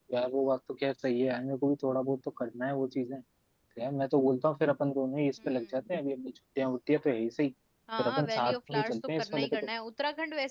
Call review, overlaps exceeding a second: present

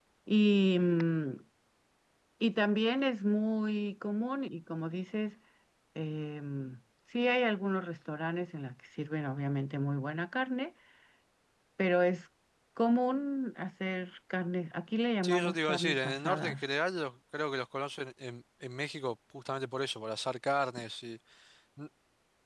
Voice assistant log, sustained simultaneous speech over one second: present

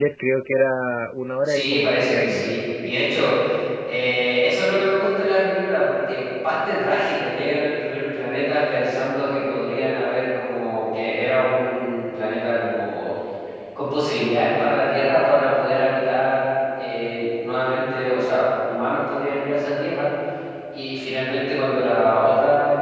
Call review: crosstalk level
present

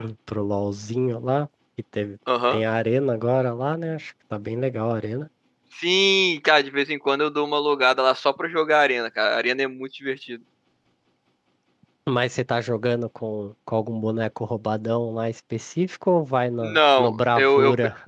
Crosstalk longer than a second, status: present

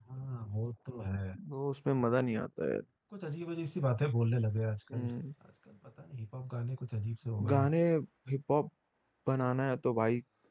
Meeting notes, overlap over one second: none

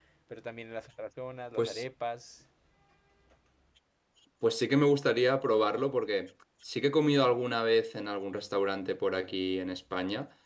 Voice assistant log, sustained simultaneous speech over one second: none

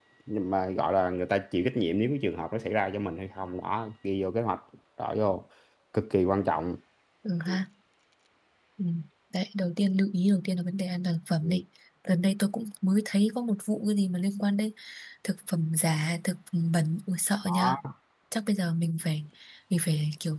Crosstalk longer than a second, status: none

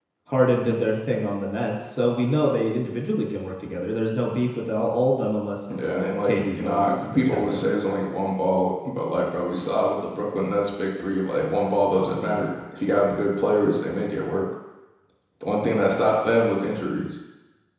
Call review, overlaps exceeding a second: present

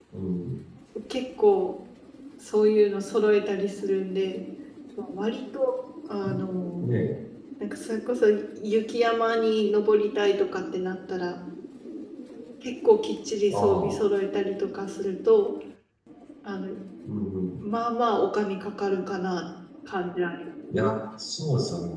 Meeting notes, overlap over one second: none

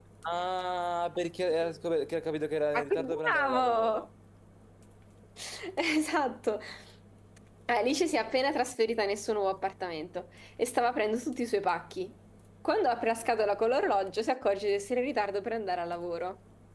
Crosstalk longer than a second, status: present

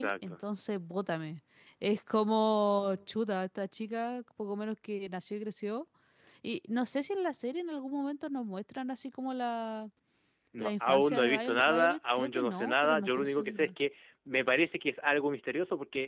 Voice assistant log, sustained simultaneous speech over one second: present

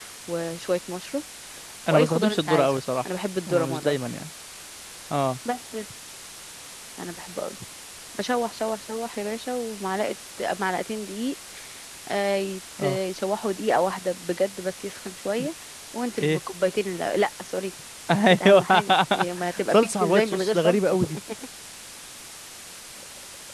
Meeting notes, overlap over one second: present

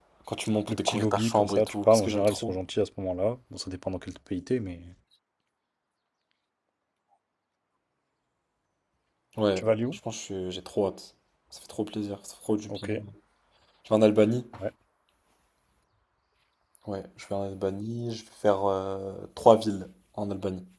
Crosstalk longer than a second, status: present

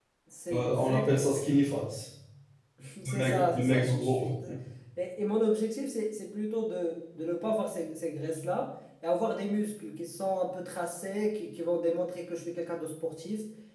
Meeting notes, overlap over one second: present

